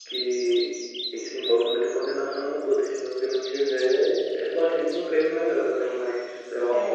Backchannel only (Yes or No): No